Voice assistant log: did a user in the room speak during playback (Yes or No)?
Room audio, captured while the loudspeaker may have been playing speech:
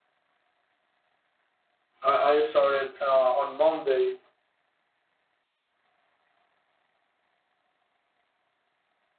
Yes